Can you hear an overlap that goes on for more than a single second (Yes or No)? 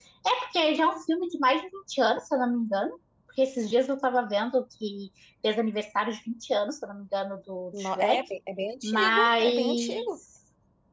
Yes